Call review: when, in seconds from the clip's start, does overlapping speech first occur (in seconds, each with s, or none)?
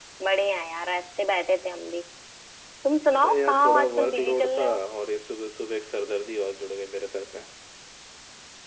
3.2 s